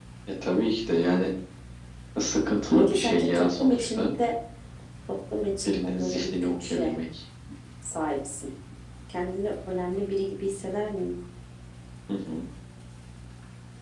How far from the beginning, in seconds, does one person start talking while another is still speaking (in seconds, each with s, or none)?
2.8 s